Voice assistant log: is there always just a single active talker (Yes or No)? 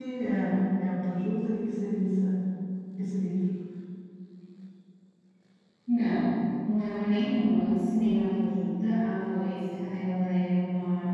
Yes